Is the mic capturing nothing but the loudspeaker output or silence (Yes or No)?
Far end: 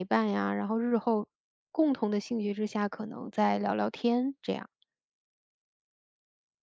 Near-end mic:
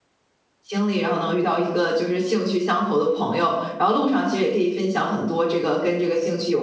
No